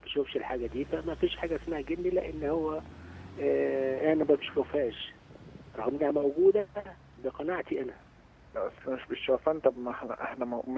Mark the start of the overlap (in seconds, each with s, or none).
none